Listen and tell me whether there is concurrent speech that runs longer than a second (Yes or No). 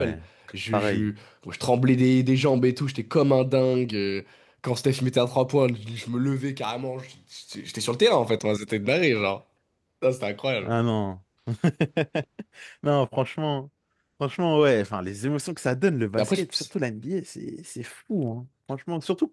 No